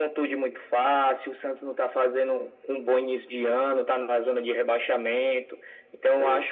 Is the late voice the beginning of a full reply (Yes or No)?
No